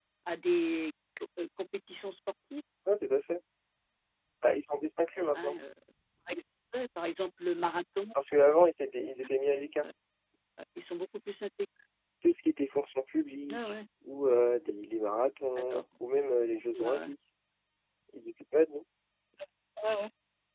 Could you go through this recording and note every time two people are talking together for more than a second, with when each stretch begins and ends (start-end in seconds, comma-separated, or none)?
none